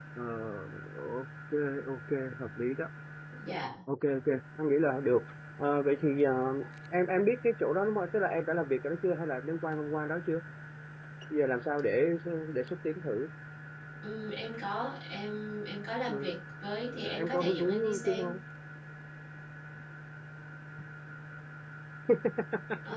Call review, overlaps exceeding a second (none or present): present